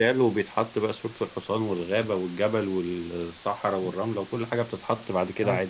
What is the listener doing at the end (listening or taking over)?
taking over